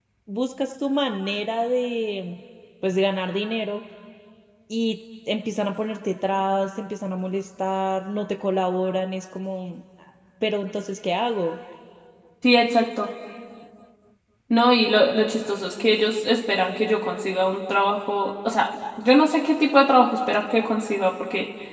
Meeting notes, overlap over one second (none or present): none